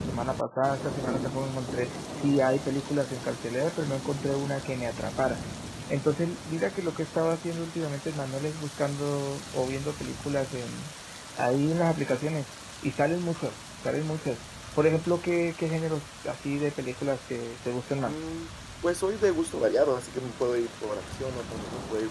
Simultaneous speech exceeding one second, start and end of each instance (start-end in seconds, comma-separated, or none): none